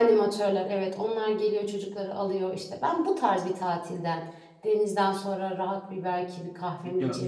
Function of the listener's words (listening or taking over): taking over